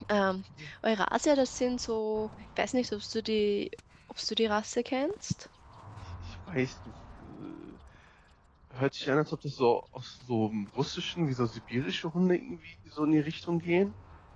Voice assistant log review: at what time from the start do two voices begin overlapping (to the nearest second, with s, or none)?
none